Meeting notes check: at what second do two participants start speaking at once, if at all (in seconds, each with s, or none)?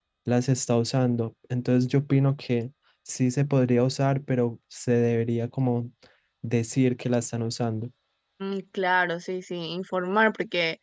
none